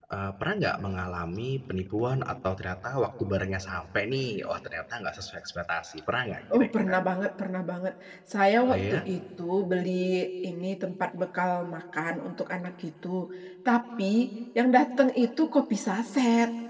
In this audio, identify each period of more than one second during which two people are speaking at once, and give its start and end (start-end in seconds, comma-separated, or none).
none